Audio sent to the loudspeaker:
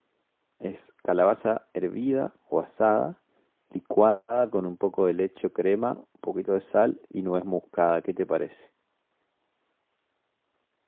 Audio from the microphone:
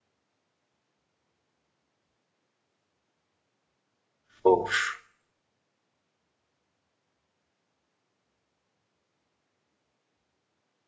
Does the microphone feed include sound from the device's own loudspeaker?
No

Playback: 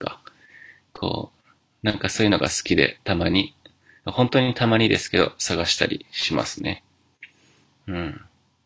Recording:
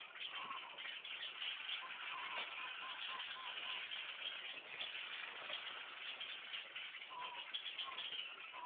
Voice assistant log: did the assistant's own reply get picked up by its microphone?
No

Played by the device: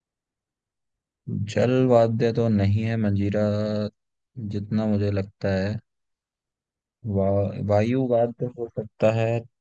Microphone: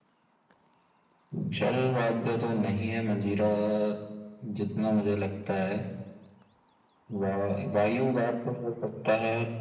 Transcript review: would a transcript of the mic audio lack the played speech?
No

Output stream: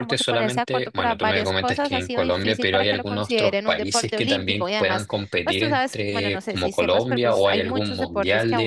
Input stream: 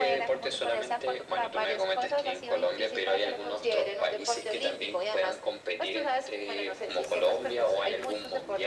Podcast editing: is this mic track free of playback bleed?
No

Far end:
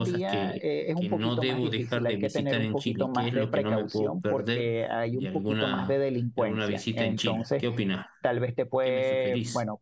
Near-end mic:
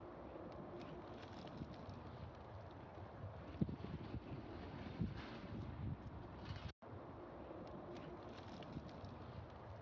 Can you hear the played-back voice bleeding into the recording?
No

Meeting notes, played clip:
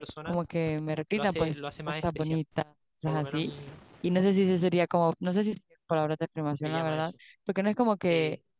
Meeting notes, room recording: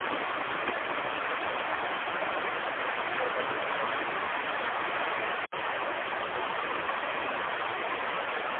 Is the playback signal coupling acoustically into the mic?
No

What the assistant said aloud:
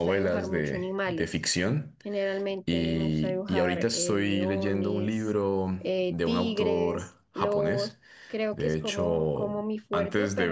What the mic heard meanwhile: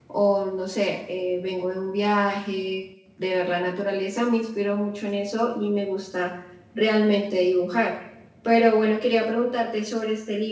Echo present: No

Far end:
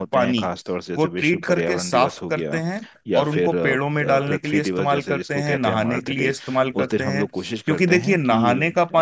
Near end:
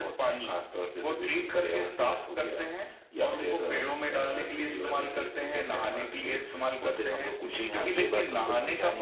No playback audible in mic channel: No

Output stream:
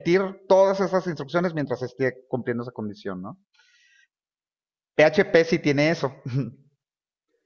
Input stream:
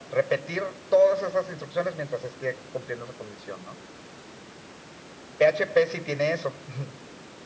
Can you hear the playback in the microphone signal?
Yes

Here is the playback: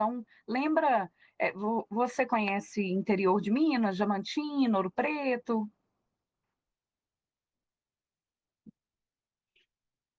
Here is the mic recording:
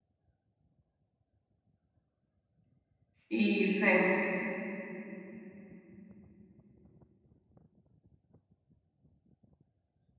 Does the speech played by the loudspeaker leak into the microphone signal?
No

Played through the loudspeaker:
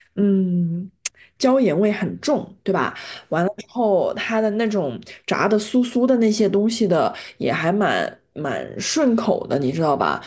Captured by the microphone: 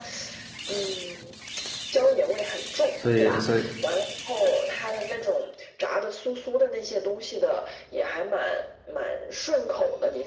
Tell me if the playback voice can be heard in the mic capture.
Yes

